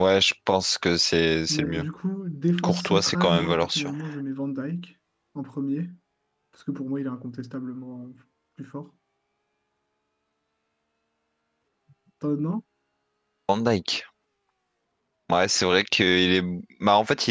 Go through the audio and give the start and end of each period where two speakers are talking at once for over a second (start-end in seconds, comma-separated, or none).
2.6-3.9